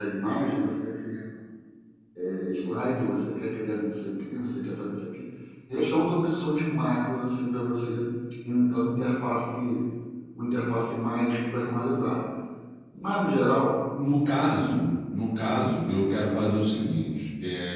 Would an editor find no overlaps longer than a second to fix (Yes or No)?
Yes